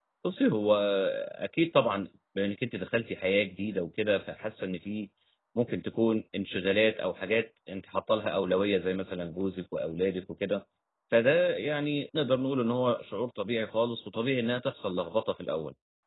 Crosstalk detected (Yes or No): No